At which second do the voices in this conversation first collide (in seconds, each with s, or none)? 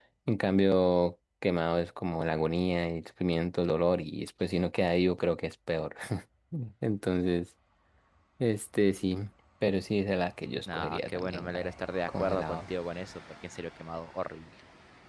10.5 s